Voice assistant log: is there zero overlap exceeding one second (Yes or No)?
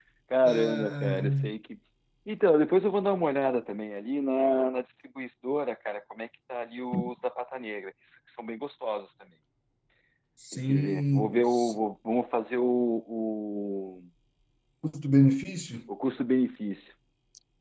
No